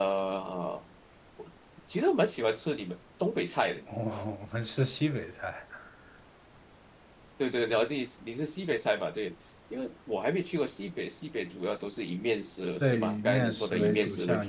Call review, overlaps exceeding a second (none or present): present